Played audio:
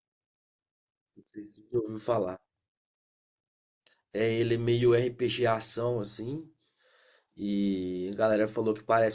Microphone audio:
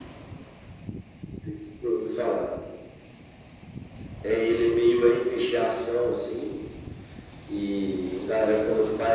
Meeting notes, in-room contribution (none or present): none